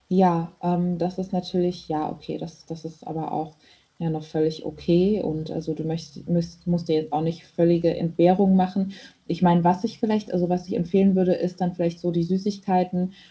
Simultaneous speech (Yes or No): No